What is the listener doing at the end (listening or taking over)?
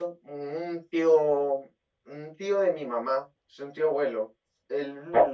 listening